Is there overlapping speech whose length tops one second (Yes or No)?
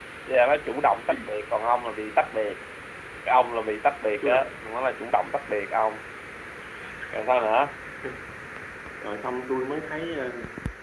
No